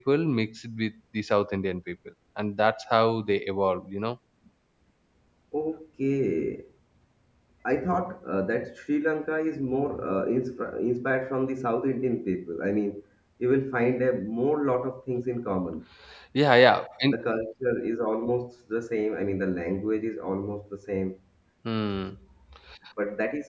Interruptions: none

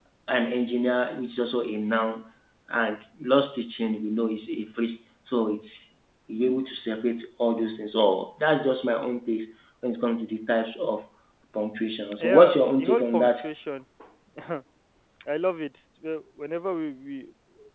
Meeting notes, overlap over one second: present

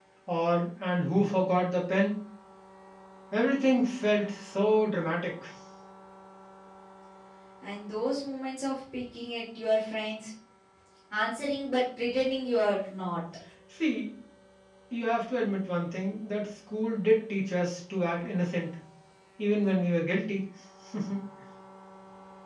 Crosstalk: none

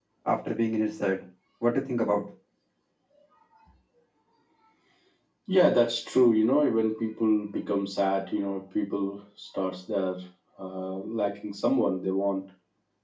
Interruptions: none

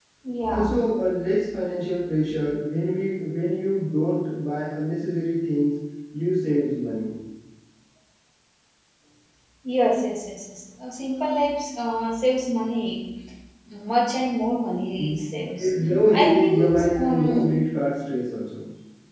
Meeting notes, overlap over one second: present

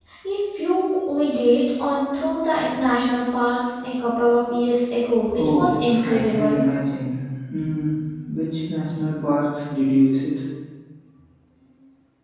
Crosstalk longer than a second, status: present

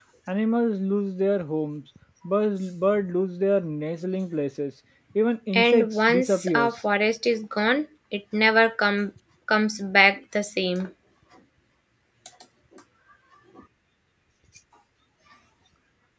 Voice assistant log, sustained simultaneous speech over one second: present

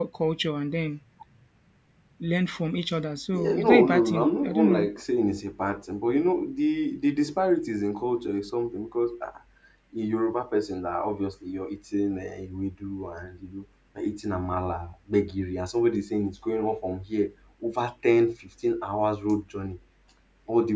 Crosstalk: present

